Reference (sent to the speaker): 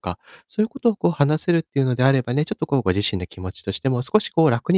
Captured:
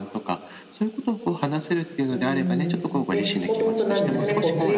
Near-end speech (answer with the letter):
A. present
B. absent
A